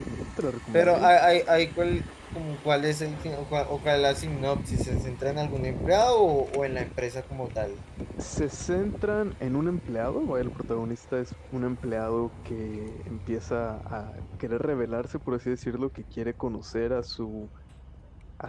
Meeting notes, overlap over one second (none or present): none